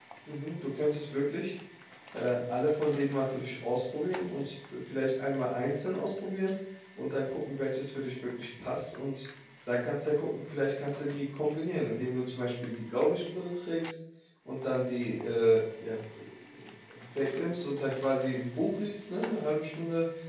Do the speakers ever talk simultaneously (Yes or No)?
No